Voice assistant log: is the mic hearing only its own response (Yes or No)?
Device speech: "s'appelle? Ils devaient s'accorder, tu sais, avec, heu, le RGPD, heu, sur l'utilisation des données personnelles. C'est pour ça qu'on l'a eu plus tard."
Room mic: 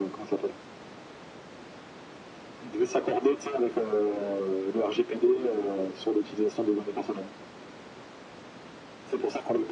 Yes